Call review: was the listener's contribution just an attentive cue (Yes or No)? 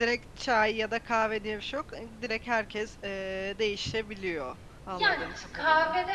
No